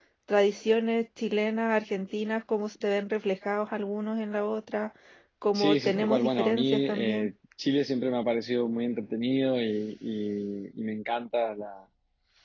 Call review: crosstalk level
present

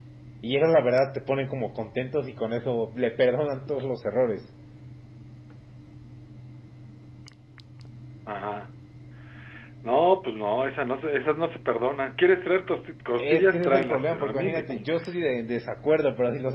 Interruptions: present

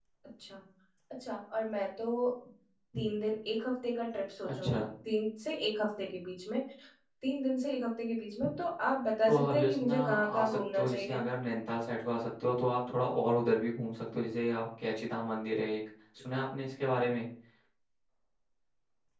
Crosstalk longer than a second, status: present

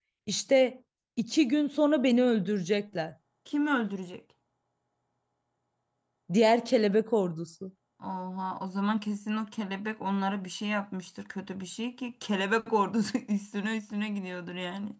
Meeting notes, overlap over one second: none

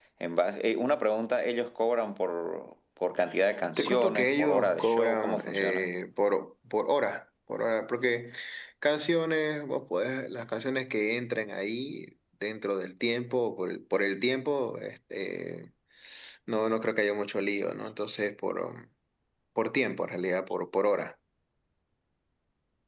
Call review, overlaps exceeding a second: present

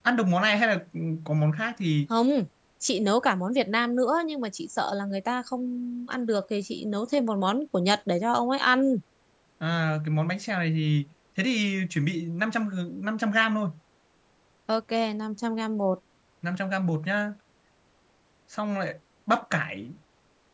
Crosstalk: none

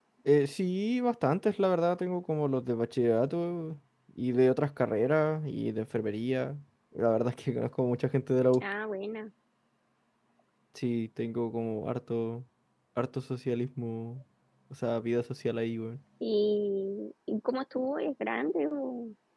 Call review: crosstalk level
none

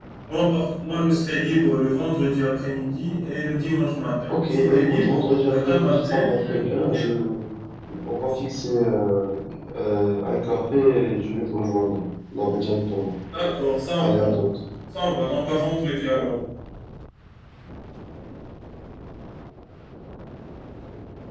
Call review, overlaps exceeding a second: present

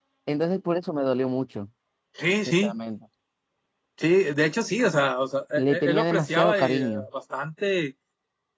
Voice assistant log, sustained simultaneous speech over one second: present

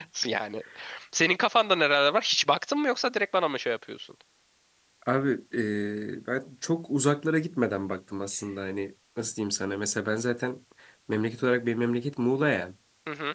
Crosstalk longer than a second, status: none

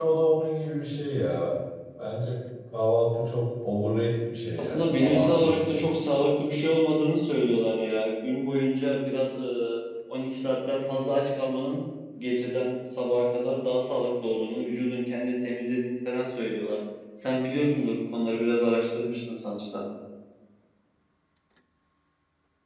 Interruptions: present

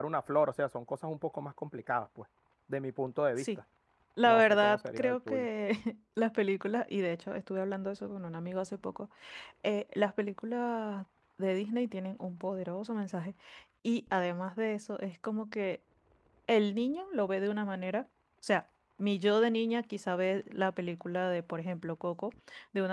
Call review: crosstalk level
present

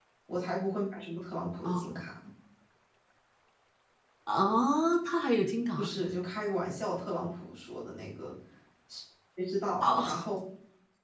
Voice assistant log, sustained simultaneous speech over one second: none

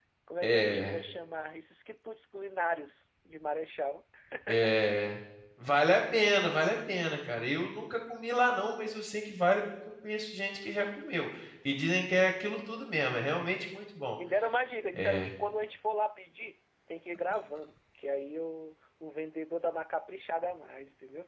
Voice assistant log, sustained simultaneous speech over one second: none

